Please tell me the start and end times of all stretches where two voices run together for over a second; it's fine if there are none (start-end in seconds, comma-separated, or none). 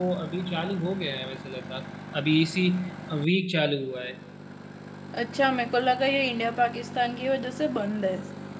none